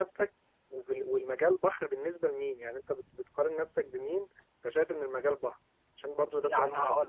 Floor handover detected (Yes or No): Yes